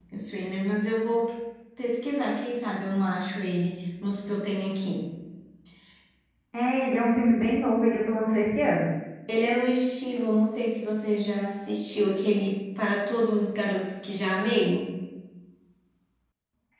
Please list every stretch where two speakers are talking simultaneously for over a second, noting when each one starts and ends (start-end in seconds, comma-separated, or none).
none